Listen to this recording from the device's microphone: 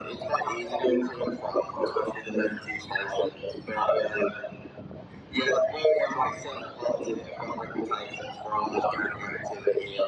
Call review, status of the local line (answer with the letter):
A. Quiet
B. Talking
A